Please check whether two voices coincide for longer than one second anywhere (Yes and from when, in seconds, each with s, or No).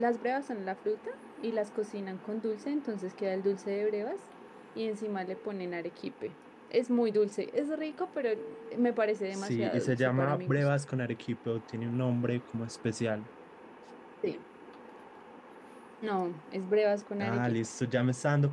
Yes, from 9.3 s